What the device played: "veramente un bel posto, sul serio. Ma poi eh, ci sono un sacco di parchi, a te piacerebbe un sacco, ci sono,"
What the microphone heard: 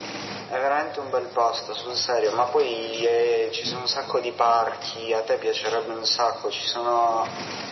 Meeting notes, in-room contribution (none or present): none